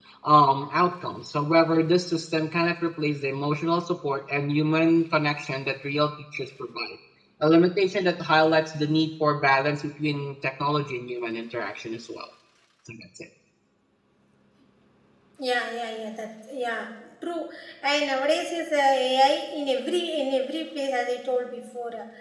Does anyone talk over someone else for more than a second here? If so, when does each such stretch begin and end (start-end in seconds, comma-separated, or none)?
none